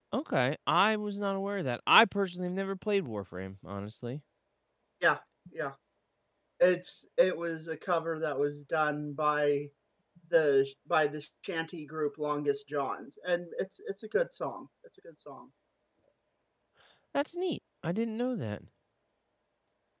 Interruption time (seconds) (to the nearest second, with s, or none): none